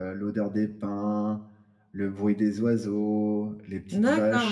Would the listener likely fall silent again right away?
No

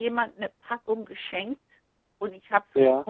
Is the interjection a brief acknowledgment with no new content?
Yes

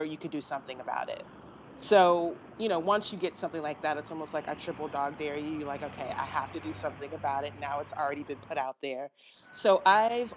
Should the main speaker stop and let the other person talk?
No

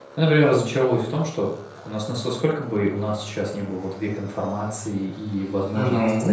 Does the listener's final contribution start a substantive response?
No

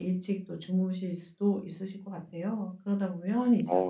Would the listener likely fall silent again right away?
Yes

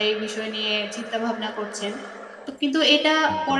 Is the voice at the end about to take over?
No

